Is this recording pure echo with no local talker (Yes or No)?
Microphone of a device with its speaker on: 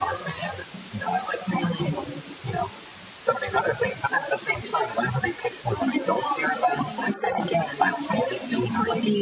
Yes